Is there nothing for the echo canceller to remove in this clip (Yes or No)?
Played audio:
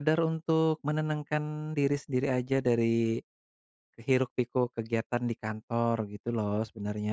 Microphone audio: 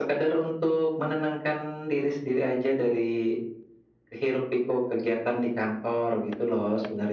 No